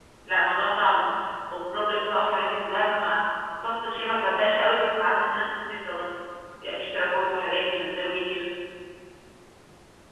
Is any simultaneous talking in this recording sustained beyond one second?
No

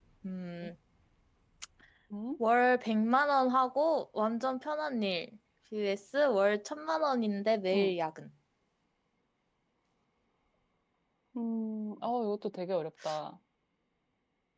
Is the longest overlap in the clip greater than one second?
No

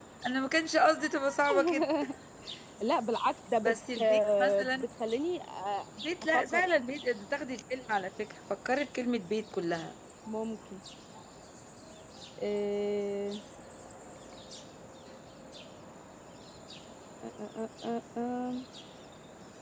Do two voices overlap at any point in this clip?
Yes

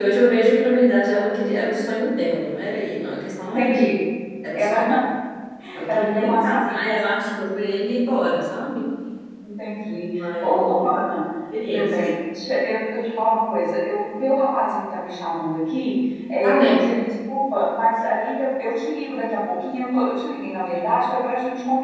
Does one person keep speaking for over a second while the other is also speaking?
Yes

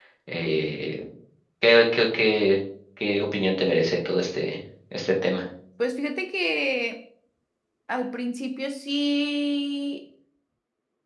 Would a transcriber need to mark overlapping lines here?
No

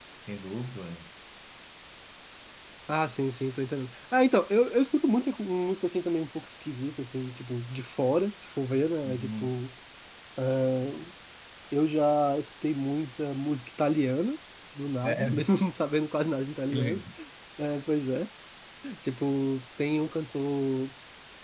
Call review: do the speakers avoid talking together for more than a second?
Yes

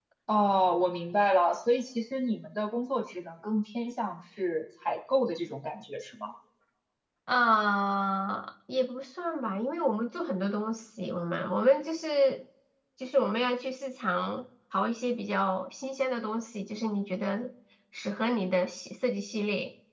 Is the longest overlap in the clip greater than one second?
No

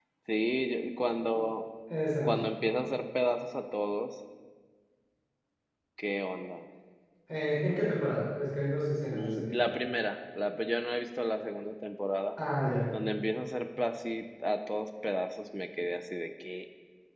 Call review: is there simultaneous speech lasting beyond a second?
No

